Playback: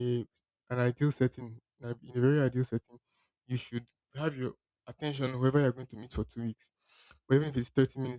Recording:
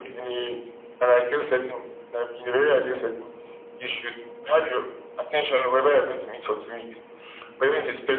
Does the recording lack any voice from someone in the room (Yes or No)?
Yes